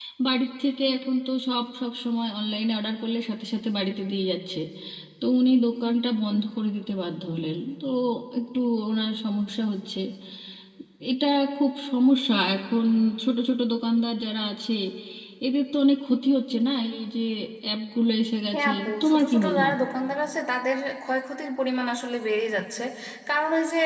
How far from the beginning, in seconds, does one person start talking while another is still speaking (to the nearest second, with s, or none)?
19 s